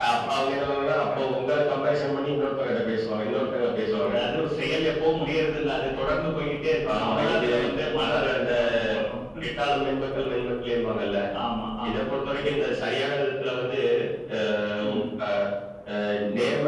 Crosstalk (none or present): present